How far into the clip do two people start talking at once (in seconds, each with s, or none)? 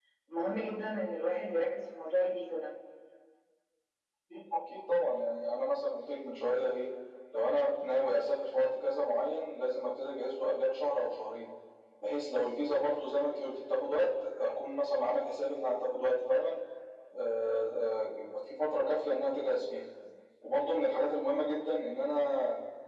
none